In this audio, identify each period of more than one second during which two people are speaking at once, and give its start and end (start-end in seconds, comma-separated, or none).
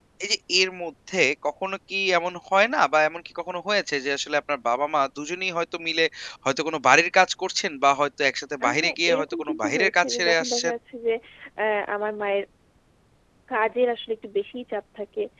8.6-10.7